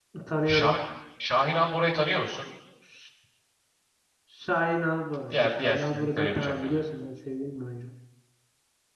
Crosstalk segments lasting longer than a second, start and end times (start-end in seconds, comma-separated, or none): 5.3-6.8